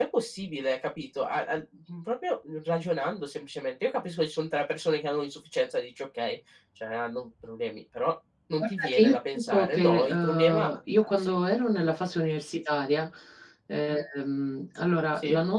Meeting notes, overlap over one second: present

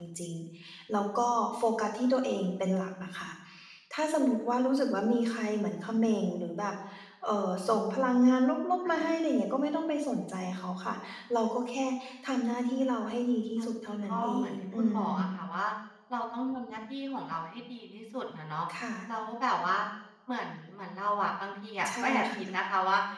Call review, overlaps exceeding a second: present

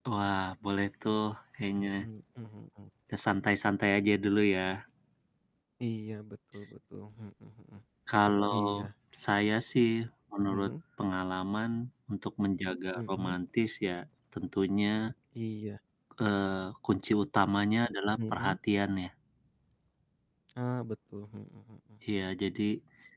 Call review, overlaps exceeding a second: none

